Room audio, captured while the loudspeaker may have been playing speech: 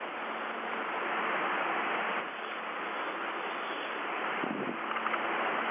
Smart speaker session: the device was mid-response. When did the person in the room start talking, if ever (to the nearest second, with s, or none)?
none